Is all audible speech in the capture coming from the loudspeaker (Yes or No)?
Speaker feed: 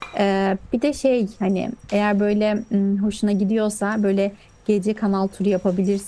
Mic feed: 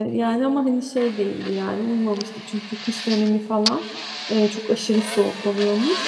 No